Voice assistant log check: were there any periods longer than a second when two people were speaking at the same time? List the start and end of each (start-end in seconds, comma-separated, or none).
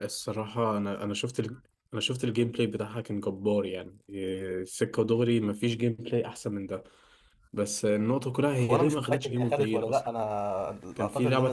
8.6-10.0